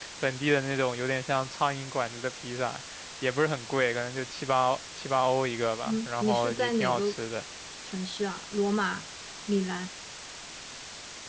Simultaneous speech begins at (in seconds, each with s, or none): 5.8 s